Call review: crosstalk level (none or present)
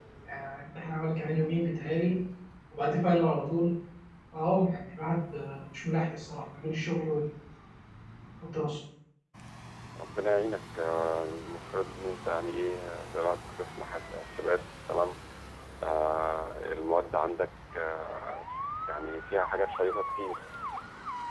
none